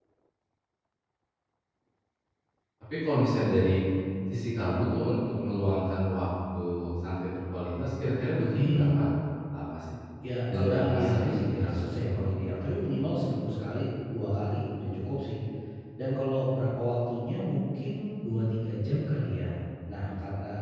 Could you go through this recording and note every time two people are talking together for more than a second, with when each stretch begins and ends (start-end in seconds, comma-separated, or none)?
10.5-12.2